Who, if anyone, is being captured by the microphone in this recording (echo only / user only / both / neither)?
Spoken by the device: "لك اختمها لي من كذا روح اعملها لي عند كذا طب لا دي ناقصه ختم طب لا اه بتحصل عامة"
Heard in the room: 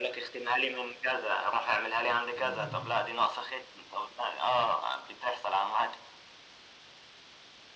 both